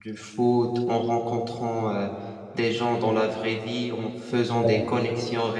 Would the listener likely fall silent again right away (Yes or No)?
Yes